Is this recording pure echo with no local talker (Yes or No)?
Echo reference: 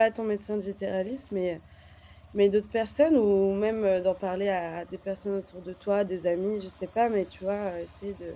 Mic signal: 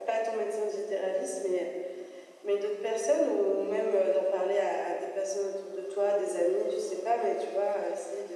Yes